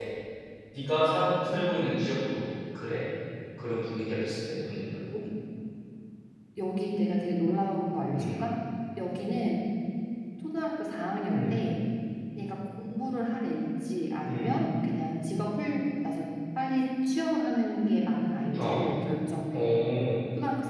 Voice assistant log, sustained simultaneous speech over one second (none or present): none